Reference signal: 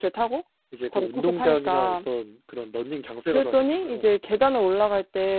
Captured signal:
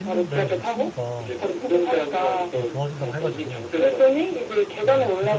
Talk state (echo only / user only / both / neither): both